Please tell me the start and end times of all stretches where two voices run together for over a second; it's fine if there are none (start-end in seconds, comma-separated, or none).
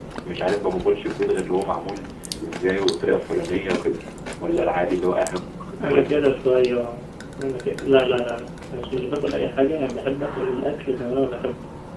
none